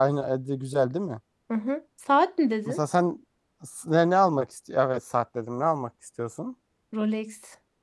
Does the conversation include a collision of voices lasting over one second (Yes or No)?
No